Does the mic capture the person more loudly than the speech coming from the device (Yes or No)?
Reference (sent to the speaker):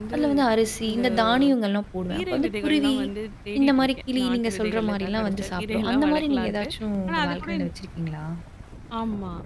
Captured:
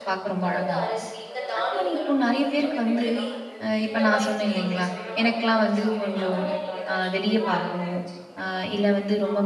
Yes